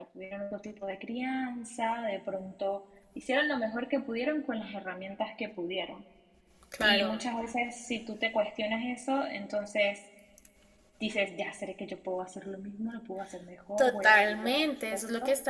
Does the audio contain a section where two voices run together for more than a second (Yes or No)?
Yes